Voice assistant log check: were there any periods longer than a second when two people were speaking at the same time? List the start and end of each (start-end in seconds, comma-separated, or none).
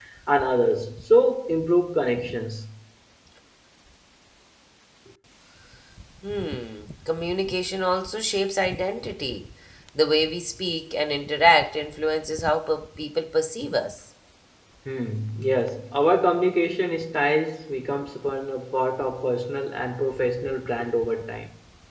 none